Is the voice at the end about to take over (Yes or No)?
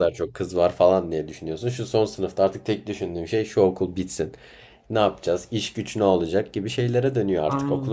Yes